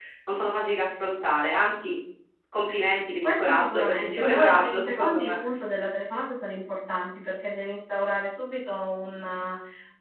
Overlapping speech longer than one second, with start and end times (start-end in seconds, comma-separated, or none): 3.2-5.4